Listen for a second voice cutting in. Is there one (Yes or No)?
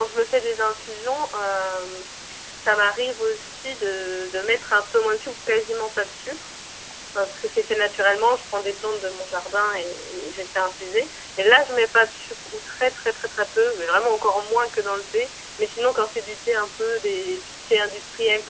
No